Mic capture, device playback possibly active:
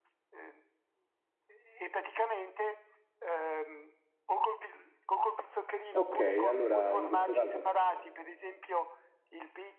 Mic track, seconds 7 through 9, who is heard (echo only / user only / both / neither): both